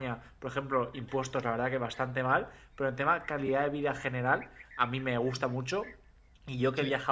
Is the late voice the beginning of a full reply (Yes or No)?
No